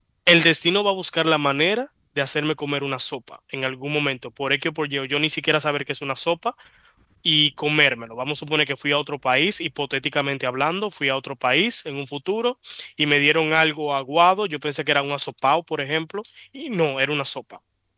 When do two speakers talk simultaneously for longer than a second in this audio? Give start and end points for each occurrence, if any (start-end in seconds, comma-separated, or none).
none